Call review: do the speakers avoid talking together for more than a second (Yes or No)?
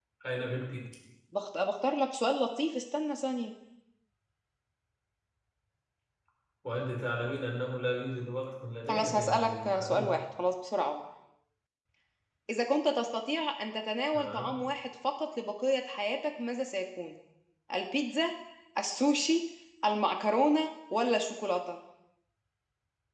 No